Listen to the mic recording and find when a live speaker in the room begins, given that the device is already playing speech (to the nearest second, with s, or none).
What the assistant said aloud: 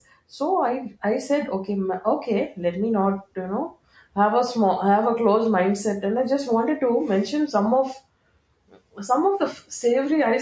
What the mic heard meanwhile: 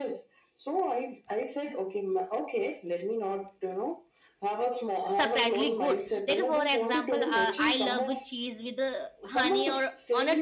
5 s